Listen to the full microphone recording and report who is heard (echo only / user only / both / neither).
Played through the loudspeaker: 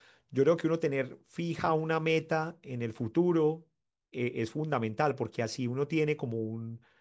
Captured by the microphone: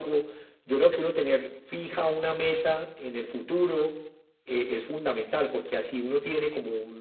echo only